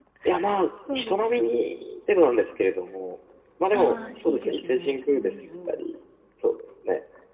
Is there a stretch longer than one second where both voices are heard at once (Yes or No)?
Yes